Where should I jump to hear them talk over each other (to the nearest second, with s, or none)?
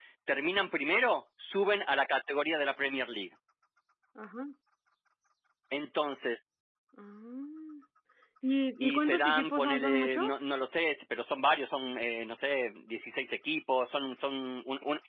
9 s